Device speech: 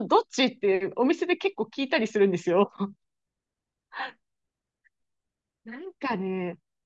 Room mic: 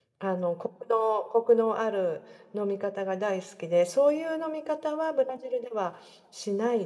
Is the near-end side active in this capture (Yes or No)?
Yes